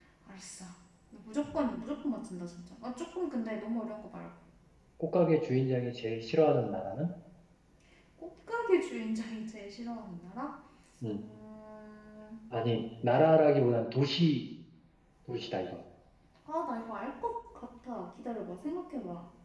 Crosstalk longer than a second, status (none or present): none